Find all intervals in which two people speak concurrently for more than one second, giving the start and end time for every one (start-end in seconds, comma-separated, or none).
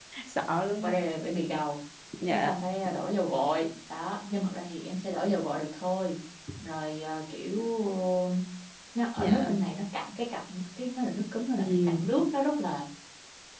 none